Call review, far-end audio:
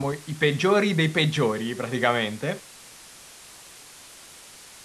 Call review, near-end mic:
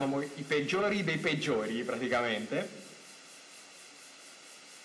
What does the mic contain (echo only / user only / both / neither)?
echo only